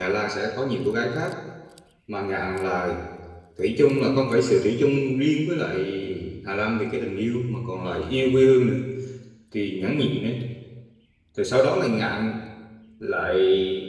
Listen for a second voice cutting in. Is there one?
No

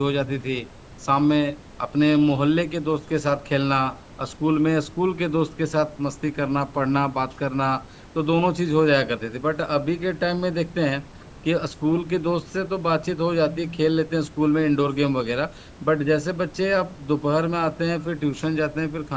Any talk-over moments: No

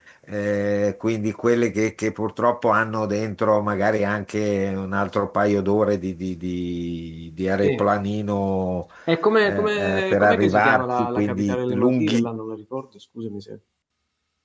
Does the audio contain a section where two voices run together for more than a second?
Yes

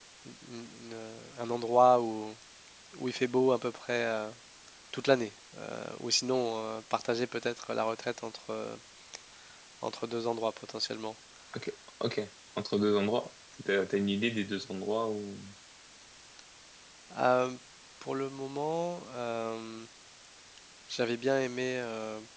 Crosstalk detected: No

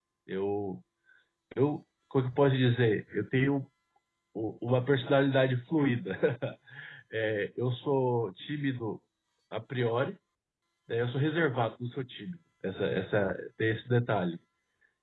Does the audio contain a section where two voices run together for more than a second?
No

